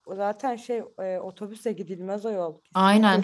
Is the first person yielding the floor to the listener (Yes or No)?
Yes